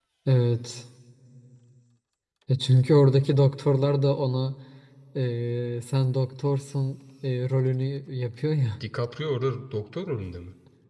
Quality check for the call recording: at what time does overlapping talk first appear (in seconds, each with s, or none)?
none